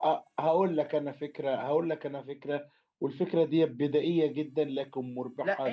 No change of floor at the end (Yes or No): No